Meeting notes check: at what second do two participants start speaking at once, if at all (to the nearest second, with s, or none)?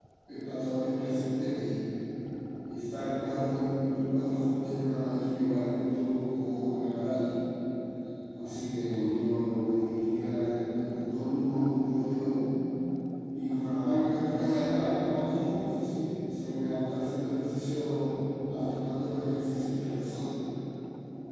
none